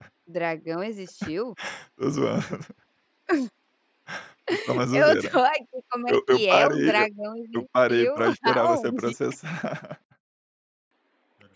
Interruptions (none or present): present